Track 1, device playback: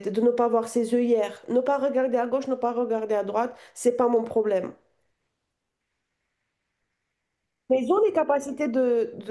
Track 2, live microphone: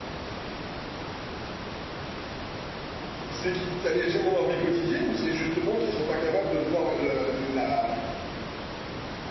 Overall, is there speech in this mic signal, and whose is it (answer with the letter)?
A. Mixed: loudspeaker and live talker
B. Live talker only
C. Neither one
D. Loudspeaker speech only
B